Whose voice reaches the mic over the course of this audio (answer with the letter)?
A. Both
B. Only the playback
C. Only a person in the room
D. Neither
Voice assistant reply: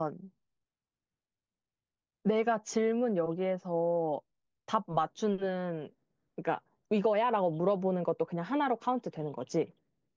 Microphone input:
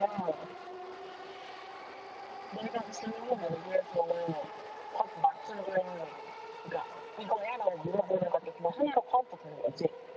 B